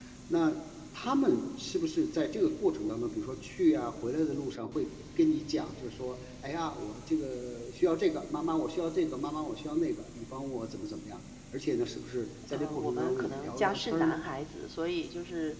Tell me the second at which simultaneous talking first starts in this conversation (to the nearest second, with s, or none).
13 s